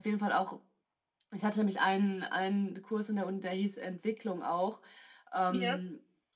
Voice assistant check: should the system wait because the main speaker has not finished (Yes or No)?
Yes